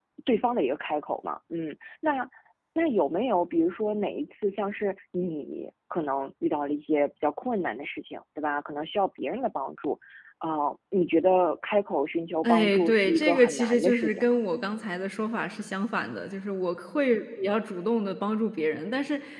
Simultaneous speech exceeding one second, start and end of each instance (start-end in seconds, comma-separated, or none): 12.4-14.2